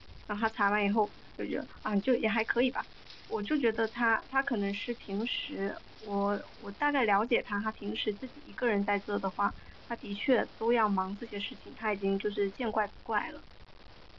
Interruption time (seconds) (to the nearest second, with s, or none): none